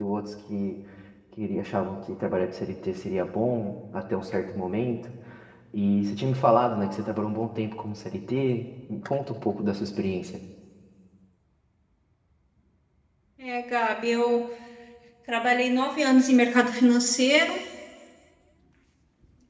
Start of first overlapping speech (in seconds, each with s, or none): none